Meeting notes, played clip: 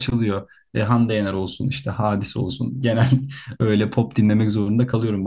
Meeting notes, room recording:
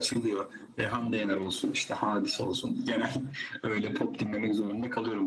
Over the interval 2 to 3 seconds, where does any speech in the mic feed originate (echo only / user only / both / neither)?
echo only